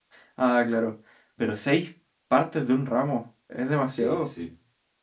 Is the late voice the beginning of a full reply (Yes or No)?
Yes